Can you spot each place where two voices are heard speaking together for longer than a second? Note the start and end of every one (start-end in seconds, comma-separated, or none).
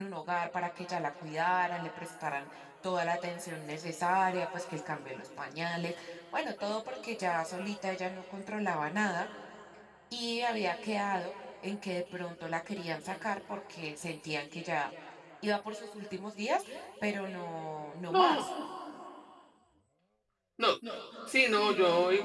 none